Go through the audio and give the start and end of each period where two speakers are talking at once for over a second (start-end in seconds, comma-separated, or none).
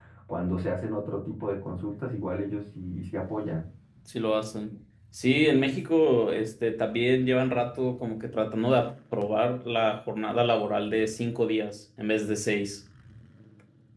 none